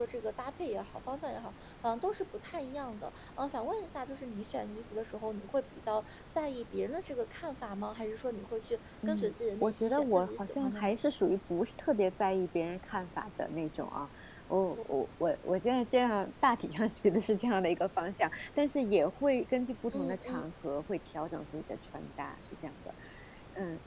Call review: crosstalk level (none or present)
present